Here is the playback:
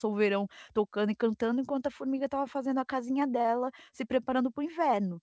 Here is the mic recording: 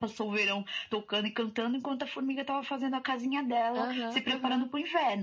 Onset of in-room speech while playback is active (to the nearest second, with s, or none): 4 s